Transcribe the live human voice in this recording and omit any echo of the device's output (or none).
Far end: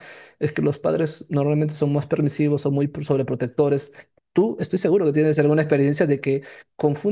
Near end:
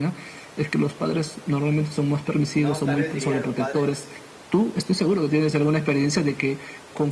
sino tal vez diría los padres